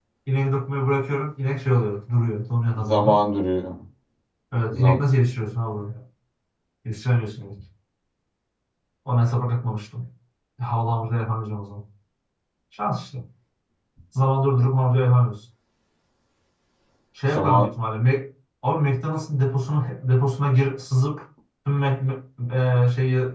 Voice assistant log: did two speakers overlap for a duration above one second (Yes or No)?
No